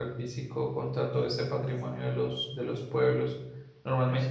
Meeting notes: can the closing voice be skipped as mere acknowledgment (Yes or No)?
Yes